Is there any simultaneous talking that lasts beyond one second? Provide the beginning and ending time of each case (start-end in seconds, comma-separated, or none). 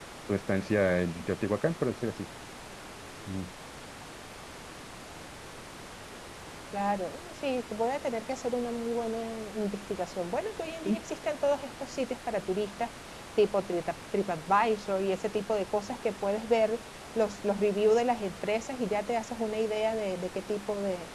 none